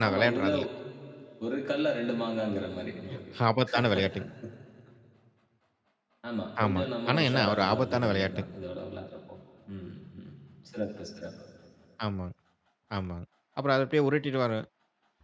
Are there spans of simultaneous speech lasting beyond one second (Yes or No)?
Yes